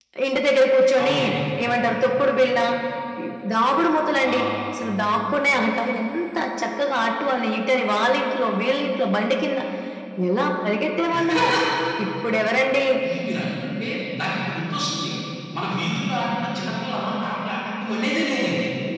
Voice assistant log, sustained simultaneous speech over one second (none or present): none